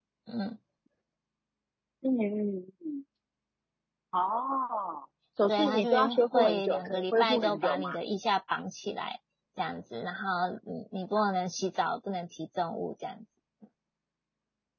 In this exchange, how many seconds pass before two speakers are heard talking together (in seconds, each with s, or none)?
5.5 s